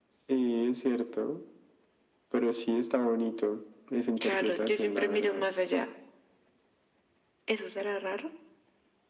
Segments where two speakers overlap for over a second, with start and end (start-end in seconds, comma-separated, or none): 4.2-5.5